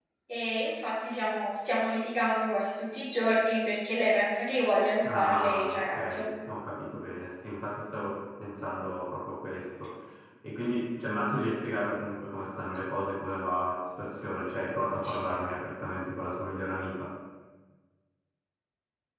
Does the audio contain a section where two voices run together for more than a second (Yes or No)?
Yes